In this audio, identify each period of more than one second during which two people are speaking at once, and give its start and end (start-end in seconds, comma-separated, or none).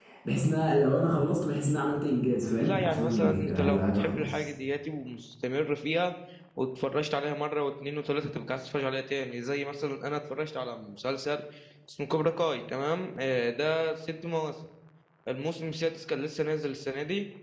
2.6-4.5